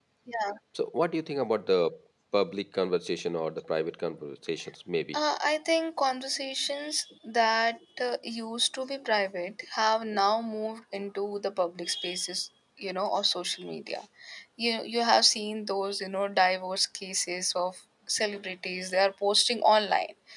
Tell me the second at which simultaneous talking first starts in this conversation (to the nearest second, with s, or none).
none